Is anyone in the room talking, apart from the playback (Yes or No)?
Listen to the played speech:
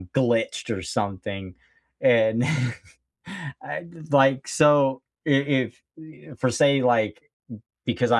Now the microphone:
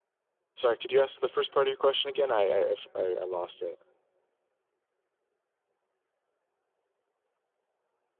Yes